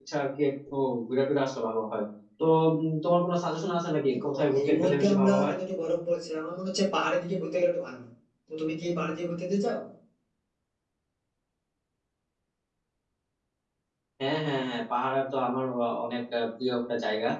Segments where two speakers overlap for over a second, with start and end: 4.1-5.5

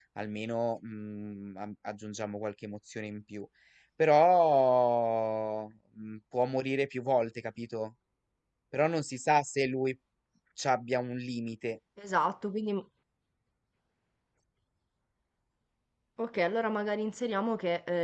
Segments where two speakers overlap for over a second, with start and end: none

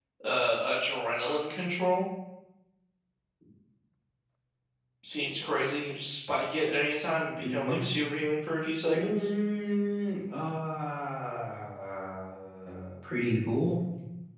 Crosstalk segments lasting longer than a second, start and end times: none

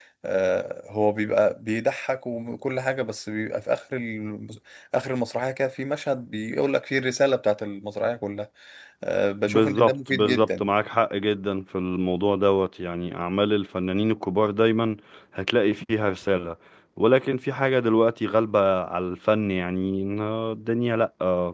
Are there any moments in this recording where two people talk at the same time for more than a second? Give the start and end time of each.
9.5-10.7

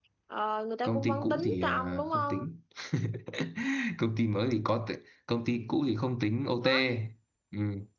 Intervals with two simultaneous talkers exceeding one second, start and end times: 0.8-2.4

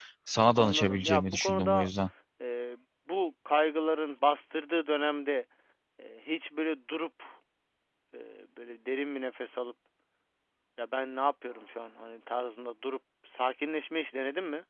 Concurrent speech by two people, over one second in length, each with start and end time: 0.6-1.9

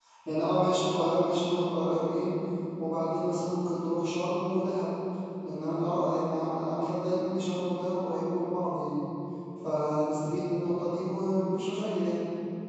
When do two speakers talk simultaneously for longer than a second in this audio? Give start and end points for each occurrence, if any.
none

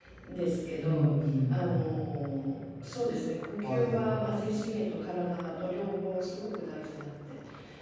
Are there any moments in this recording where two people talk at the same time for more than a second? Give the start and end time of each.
none

